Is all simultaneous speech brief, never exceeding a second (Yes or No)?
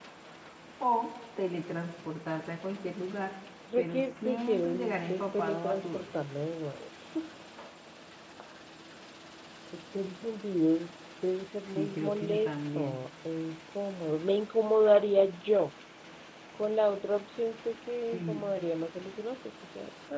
No